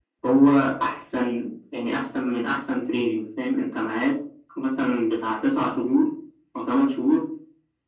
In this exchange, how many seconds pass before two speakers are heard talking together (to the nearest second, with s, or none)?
none